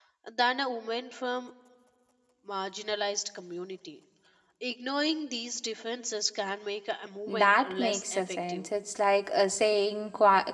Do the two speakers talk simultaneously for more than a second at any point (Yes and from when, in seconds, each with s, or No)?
Yes, from 7.3 s